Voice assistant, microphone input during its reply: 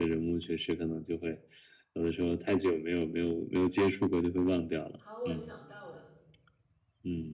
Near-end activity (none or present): present